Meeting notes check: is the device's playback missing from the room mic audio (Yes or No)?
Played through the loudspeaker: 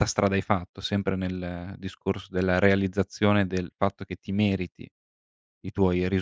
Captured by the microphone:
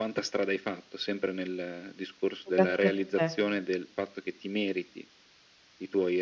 No